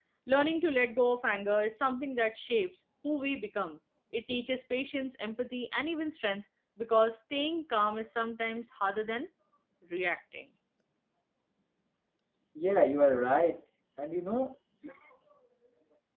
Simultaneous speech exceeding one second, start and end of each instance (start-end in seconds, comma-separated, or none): none